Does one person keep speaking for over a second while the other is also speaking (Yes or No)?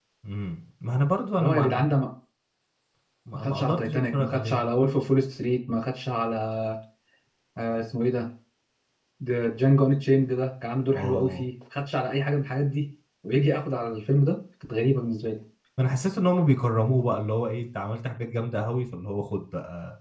Yes